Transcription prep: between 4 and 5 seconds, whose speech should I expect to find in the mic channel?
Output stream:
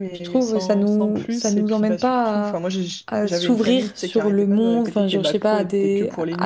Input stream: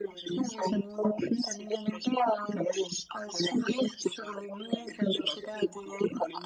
echo only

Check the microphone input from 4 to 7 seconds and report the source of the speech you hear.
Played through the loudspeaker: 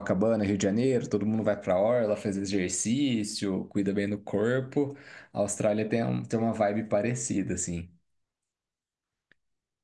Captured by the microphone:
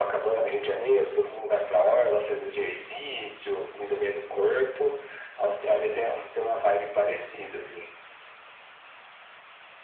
echo only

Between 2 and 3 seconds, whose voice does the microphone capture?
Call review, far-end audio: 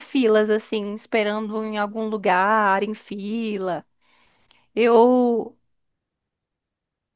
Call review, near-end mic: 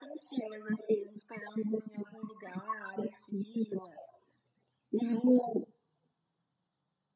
echo only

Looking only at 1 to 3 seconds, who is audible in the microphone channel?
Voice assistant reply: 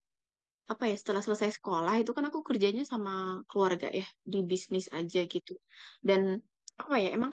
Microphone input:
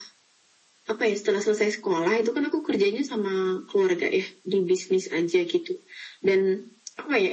echo only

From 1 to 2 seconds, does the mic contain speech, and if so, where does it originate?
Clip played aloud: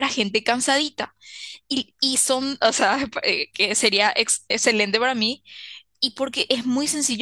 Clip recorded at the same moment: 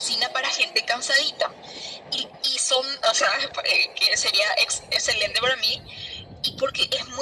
echo only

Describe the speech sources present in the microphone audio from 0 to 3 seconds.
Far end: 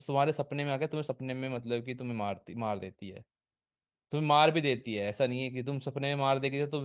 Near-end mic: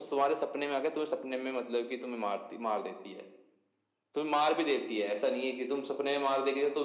echo only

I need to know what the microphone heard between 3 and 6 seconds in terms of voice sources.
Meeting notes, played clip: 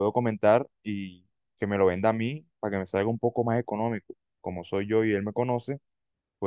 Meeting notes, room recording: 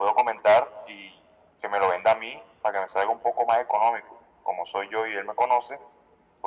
echo only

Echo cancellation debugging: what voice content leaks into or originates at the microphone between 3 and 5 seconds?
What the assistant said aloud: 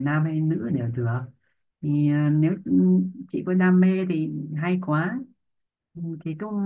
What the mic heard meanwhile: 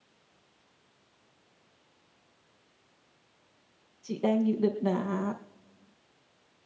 user only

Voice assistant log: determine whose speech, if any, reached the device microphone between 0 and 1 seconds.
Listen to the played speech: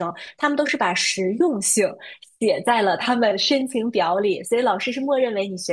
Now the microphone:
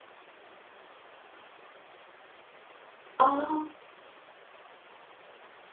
neither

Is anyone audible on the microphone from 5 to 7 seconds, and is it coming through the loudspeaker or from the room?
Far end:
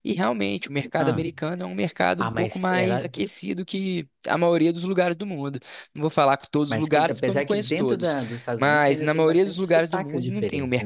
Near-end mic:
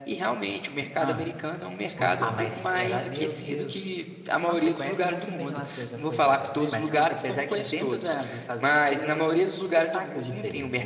both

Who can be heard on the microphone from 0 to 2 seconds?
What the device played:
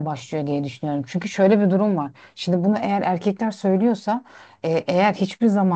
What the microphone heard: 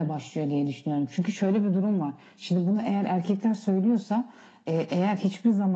echo only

